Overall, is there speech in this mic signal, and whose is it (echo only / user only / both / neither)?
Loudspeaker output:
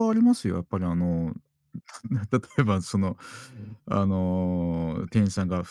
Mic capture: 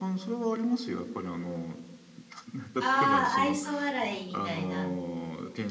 both